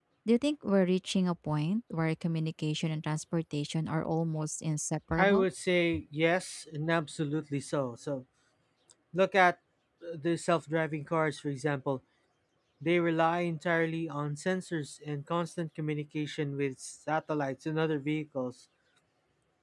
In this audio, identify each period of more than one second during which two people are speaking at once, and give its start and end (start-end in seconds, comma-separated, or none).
none